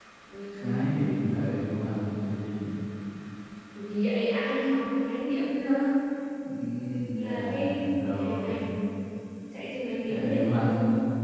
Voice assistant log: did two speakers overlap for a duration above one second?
Yes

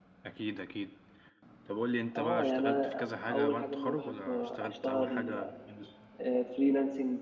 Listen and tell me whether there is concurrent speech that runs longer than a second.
Yes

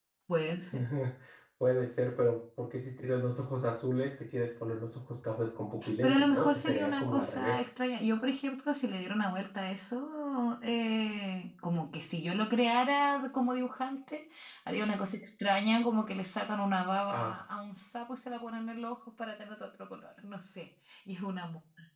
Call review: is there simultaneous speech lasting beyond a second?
Yes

